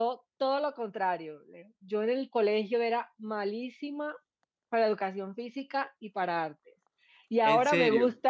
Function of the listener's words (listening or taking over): listening